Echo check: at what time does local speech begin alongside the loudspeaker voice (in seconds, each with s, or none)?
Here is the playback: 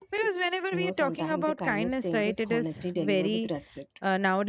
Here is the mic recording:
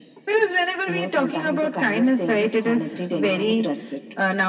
none